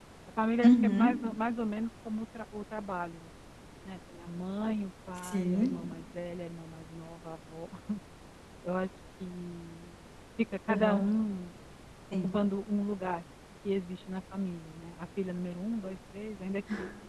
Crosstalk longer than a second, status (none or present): none